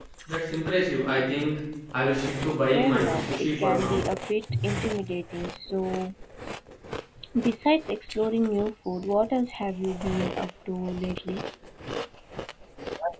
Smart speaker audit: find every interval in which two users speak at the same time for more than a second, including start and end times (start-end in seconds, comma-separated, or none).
2.7-4.0